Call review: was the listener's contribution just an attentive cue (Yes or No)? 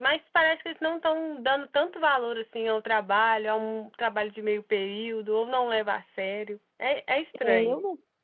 No